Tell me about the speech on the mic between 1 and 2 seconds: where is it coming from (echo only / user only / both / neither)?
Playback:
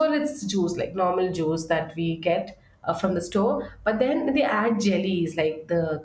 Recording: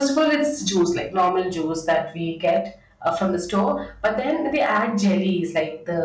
echo only